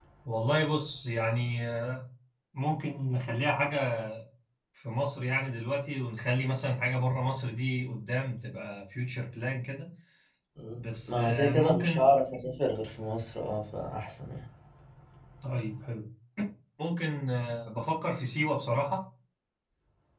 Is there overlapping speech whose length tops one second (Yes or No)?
Yes